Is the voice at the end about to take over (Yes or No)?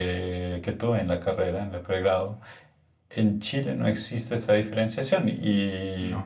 No